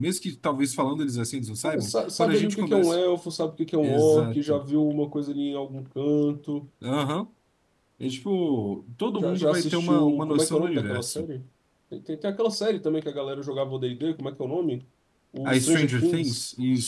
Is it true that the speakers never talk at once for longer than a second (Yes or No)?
No